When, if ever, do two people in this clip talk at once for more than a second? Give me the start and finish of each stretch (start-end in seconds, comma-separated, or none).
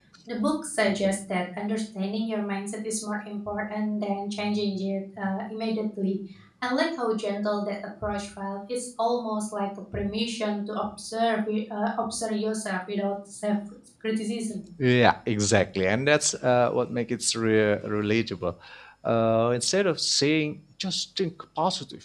none